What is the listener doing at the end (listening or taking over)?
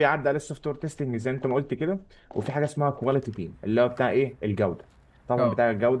listening